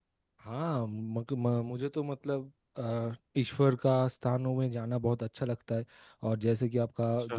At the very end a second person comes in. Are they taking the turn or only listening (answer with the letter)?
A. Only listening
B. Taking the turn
A